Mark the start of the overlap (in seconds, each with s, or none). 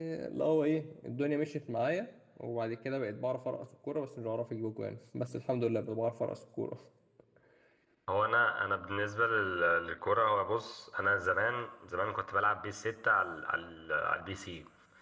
none